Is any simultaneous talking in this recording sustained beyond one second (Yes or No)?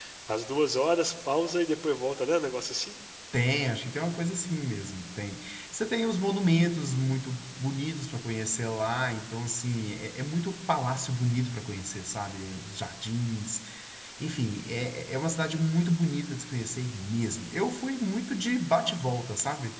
No